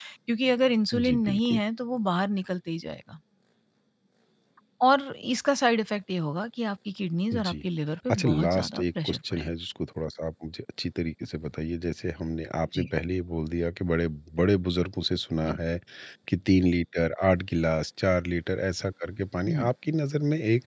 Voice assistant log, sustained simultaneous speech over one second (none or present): present